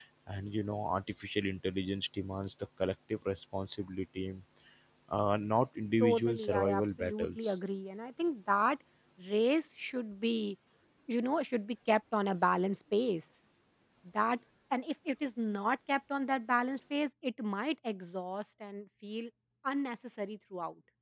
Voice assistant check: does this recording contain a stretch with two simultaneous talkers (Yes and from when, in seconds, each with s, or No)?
Yes, from 6.0 s